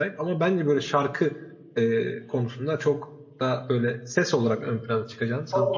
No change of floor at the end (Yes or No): No